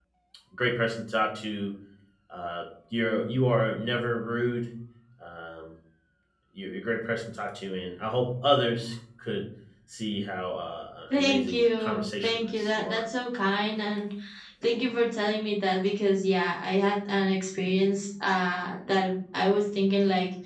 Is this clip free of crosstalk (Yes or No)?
No